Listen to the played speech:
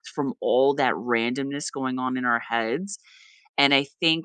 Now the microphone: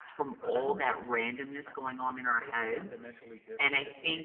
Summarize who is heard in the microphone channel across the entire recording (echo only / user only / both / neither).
both